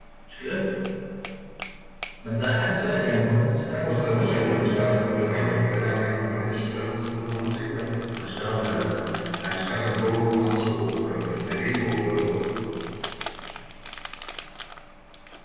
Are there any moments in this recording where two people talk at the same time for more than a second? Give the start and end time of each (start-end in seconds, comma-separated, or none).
3.8-5.7